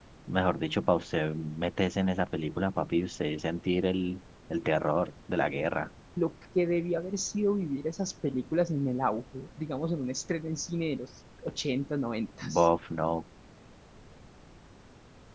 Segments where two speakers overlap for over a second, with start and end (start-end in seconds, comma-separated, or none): none